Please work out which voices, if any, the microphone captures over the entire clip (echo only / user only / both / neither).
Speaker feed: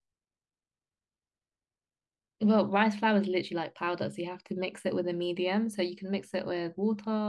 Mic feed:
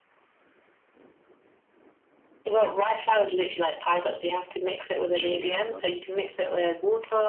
both